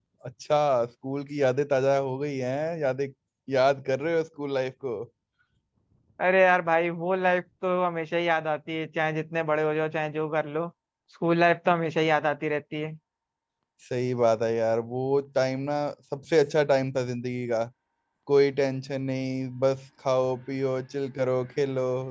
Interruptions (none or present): none